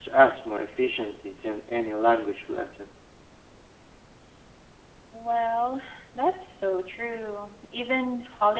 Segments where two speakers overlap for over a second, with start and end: none

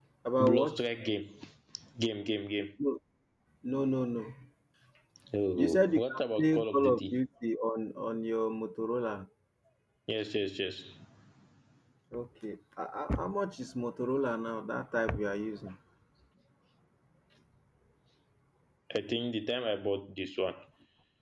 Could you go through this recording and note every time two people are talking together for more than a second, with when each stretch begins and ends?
5.6-7.2

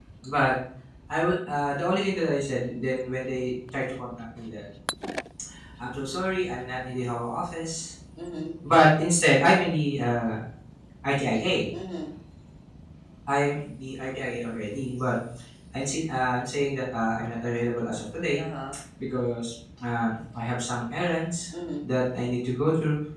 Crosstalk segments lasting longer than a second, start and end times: none

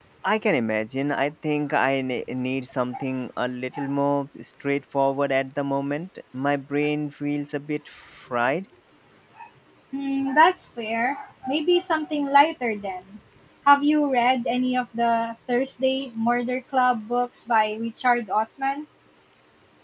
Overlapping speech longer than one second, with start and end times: none

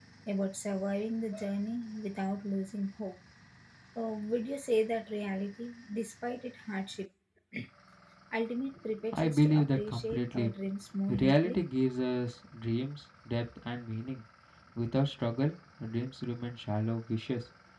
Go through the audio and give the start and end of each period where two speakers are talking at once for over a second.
9.1-10.5

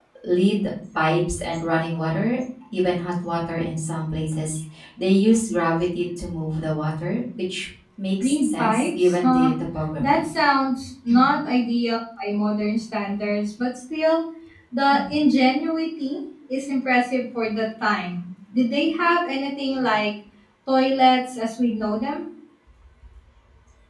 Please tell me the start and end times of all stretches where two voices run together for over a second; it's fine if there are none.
8.2-9.5

